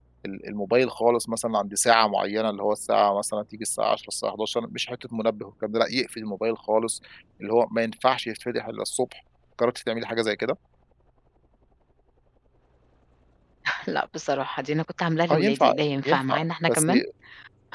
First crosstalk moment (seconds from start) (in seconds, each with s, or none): 15.3 s